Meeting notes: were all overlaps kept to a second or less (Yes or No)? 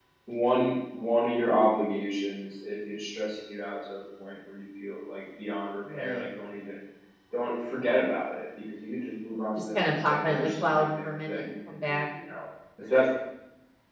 No